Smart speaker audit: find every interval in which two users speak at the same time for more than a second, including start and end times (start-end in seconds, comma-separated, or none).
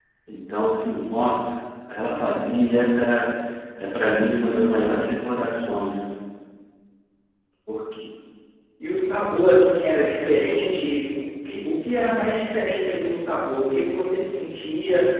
none